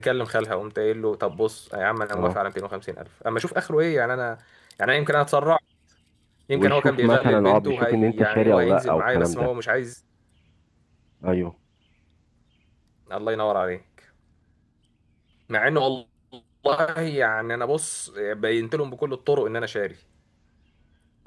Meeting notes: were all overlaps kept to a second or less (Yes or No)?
No